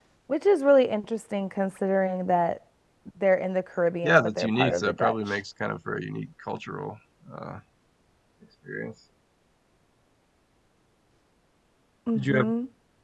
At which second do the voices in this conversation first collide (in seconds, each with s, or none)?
4.0 s